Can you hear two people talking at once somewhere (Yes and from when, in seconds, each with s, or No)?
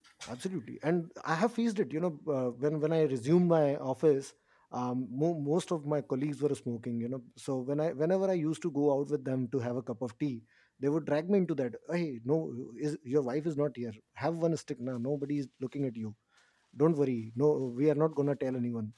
No